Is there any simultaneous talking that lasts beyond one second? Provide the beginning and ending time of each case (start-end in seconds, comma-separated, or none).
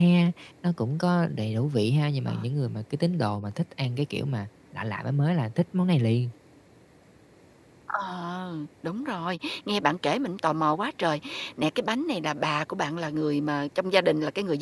none